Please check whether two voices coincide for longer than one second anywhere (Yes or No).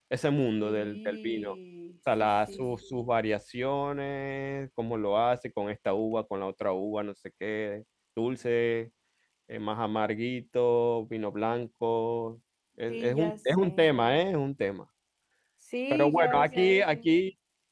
Yes